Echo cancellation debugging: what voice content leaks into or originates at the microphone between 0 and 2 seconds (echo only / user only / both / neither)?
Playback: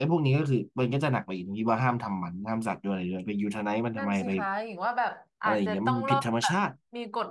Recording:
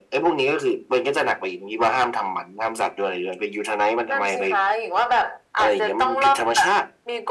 echo only